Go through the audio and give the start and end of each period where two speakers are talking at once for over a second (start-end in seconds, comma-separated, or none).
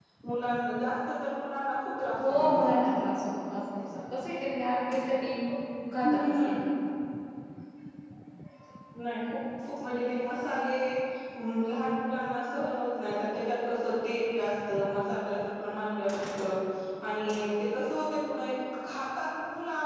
none